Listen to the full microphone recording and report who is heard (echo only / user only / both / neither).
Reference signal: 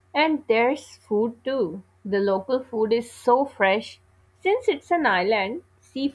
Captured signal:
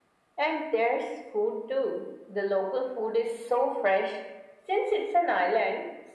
echo only